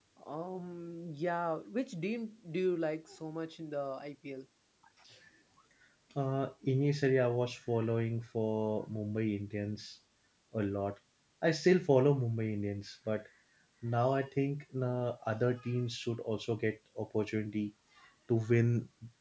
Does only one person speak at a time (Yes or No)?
Yes